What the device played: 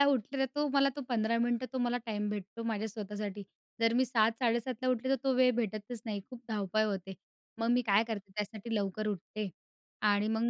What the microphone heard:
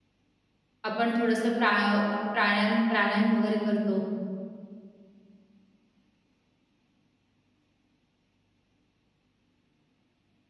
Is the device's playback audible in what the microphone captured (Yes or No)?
No